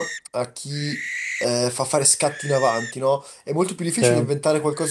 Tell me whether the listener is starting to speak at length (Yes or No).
No